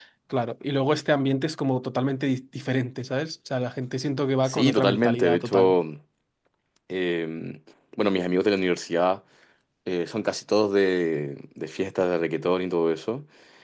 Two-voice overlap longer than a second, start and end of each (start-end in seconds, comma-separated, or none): 4.4-5.8